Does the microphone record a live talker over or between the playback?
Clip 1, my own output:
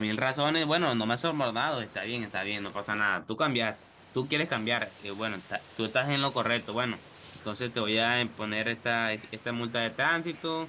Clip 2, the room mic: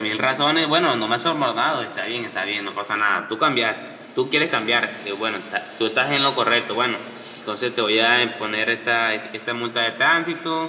No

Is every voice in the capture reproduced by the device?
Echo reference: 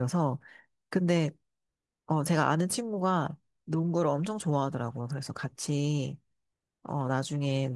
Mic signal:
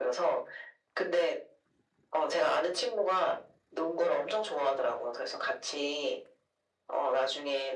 Yes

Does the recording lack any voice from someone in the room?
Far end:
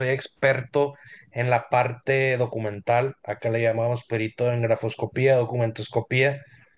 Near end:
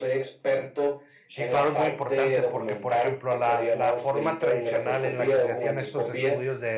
No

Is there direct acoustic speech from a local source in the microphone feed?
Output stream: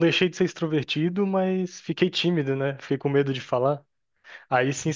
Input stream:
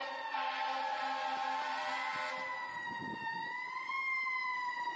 No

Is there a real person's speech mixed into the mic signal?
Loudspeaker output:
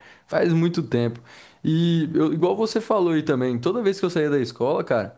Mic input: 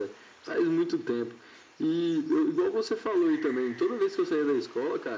No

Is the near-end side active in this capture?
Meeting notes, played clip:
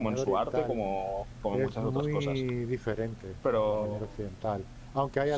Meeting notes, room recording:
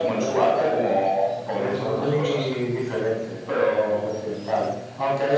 No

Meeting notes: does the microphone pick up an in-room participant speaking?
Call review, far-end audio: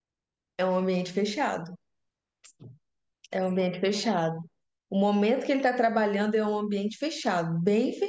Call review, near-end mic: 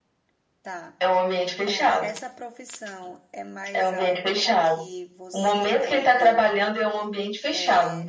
Yes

